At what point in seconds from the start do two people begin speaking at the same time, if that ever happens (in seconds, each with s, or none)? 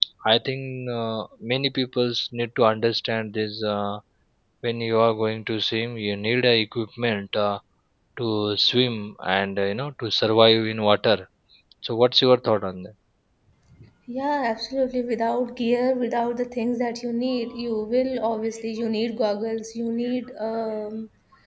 none